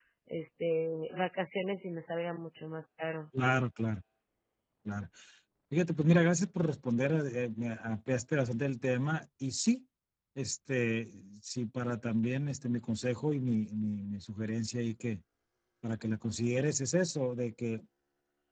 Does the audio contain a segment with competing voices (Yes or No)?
No